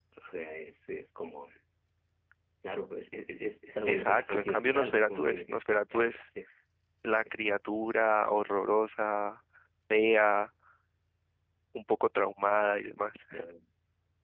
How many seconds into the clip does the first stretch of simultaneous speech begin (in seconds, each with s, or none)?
3.9 s